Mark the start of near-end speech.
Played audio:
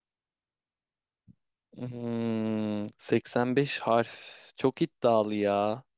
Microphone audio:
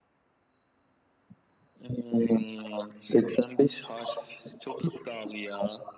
none

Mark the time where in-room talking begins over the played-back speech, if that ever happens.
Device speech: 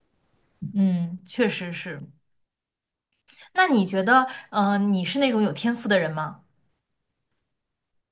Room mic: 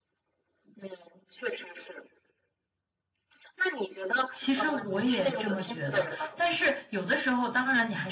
4.3 s

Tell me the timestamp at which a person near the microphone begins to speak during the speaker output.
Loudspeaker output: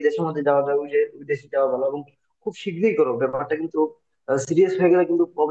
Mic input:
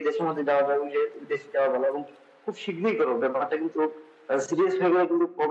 none

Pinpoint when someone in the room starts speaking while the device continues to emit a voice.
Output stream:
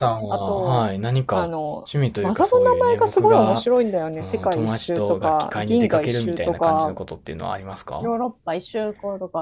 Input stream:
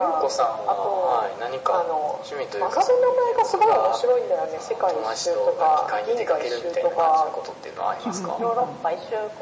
8.0 s

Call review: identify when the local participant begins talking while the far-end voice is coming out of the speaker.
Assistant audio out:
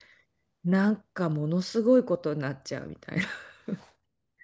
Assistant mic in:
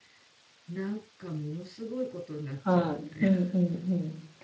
2.6 s

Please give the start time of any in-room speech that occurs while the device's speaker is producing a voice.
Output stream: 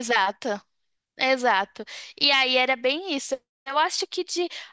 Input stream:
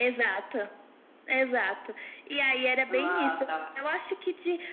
2.9 s

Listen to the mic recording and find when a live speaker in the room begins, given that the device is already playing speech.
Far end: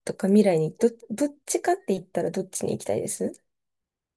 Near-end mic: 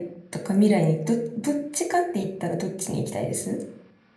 none

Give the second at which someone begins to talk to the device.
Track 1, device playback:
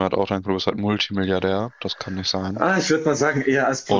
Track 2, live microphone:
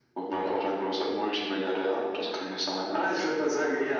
none

